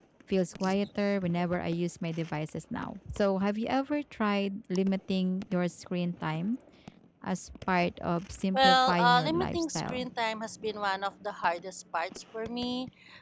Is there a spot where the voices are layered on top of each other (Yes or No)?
Yes